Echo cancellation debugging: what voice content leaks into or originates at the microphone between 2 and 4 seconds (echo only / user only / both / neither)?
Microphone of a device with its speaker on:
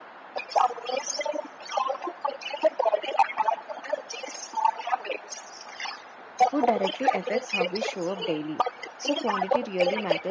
echo only